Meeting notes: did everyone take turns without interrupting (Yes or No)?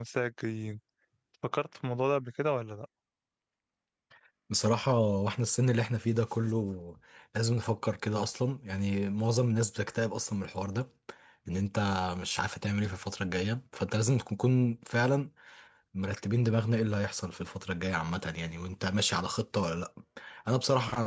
Yes